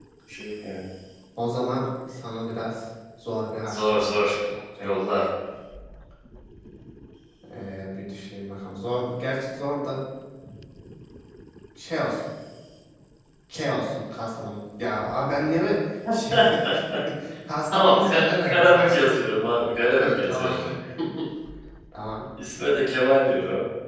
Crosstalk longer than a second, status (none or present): present